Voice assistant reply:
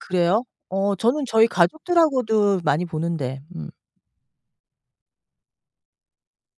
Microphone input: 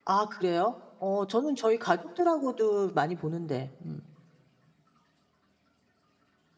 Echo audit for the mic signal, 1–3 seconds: echo only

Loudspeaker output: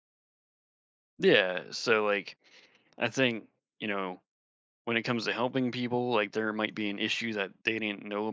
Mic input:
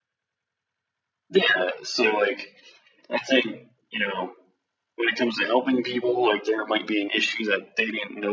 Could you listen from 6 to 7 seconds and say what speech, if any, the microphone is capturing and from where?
echo only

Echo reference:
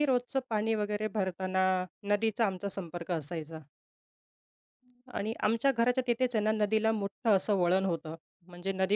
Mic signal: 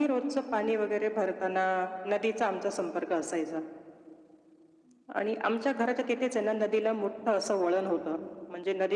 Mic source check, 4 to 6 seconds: echo only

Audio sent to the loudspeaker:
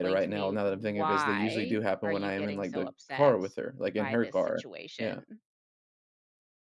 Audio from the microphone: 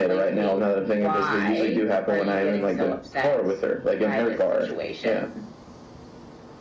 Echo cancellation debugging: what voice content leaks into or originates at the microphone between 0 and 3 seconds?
echo only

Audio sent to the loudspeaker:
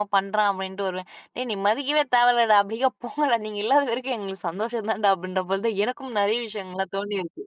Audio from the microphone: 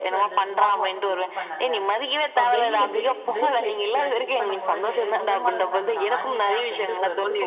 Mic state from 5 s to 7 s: both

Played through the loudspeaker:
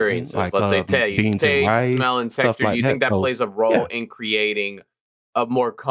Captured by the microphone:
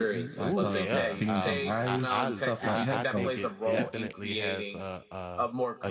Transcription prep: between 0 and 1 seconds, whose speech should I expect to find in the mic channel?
both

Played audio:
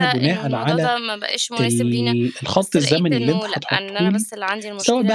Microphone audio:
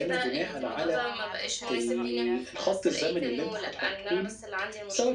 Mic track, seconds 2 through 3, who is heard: both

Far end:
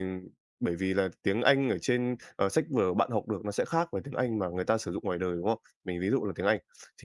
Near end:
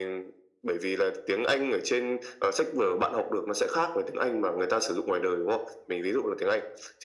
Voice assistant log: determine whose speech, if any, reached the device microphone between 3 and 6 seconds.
echo only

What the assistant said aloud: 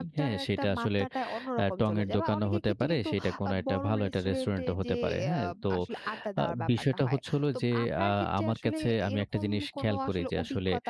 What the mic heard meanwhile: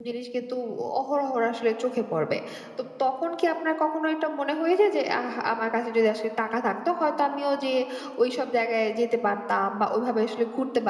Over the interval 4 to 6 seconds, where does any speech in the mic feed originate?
user only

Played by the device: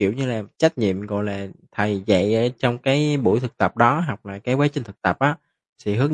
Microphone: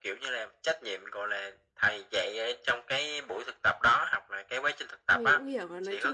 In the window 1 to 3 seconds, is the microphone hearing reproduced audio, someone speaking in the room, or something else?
echo only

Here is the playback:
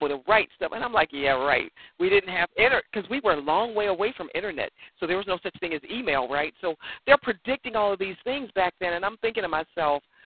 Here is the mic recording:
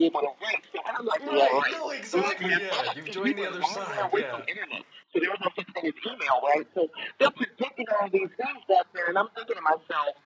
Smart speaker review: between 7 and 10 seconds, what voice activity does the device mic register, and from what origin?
echo only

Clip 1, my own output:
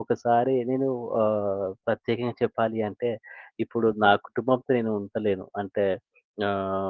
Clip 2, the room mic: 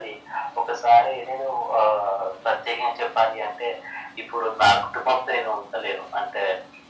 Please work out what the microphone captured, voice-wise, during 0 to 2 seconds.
echo only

